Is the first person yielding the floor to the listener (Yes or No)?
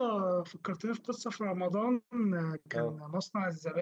No